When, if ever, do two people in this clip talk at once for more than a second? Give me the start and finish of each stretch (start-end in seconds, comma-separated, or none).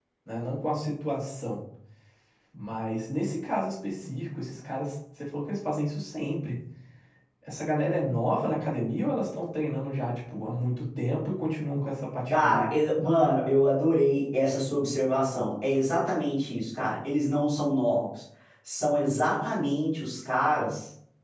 none